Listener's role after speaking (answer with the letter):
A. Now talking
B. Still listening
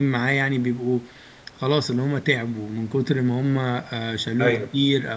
B